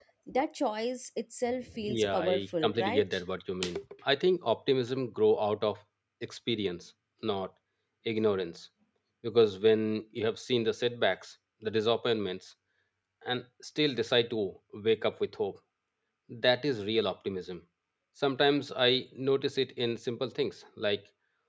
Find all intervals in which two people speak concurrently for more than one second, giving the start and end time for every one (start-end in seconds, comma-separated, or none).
1.8-3.2